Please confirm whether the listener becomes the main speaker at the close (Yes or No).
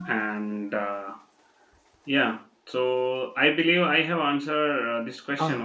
Yes